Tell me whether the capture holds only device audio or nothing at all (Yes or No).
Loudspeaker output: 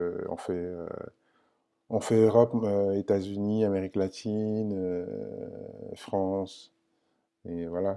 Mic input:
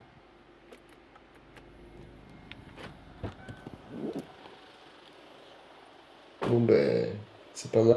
No